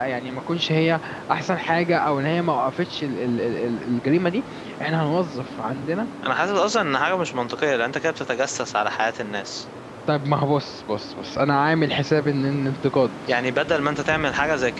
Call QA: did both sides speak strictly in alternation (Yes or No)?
Yes